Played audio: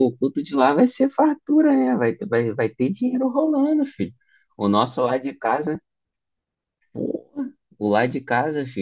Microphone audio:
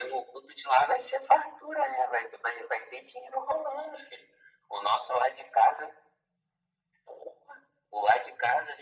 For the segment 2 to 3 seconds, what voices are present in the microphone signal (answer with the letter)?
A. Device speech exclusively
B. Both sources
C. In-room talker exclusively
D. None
A